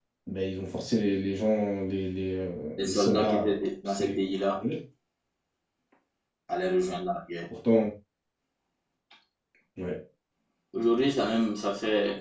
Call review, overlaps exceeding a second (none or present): present